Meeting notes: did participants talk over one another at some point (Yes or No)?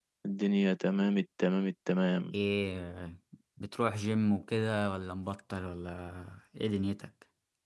No